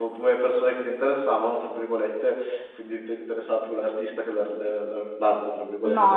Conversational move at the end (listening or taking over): taking over